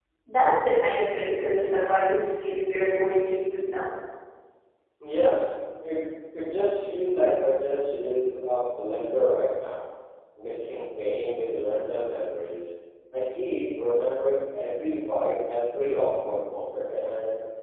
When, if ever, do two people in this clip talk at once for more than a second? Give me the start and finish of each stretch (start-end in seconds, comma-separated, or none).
none